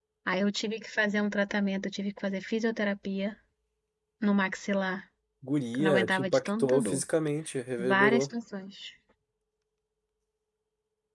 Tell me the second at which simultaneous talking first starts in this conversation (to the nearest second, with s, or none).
6 s